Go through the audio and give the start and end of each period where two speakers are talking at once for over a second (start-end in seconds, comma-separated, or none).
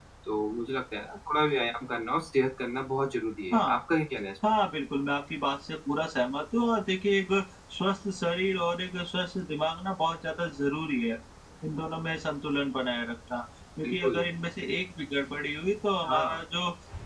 none